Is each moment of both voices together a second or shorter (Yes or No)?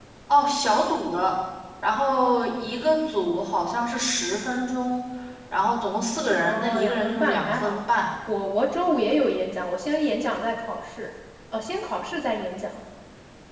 No